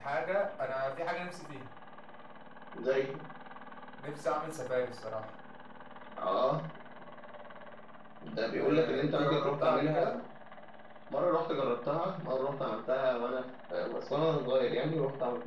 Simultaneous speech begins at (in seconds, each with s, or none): 8.6 s